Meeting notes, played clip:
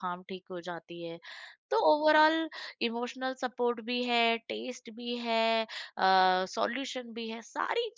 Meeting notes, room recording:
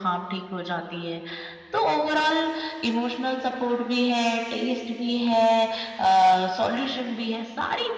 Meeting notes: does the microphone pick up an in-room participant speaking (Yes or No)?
No